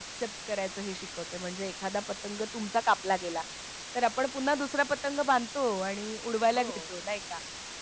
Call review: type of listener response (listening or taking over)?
listening